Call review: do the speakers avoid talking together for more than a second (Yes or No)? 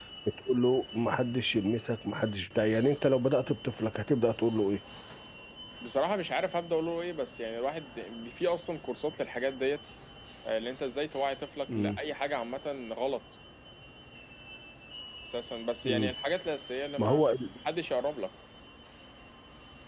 Yes